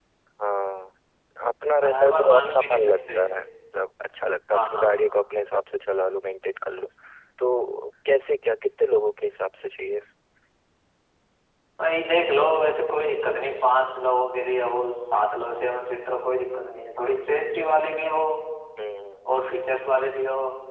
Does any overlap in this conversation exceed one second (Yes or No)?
Yes